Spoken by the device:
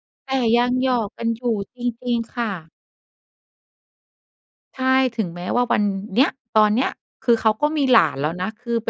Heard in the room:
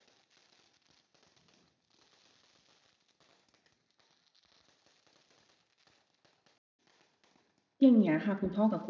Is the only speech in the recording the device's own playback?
No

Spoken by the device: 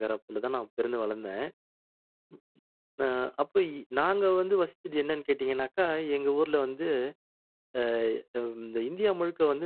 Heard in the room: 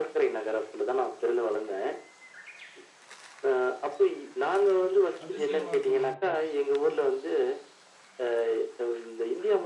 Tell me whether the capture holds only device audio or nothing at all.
No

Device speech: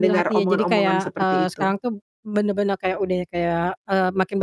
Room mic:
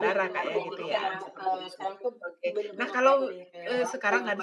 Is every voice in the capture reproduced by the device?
No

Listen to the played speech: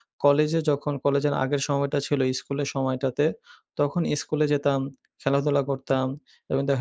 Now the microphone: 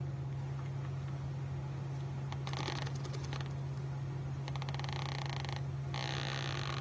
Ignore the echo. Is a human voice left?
No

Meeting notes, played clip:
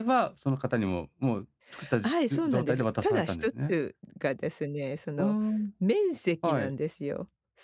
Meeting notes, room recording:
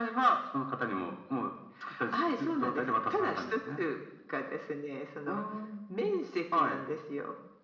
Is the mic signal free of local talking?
Yes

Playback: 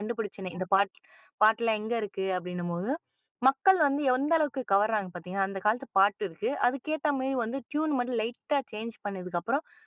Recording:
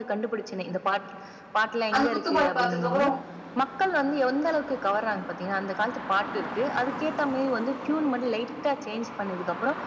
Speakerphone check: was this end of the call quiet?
No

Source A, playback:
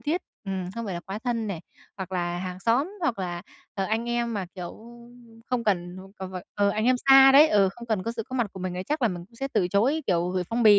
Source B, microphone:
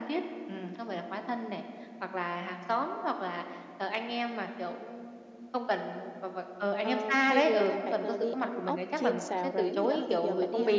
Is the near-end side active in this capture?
Yes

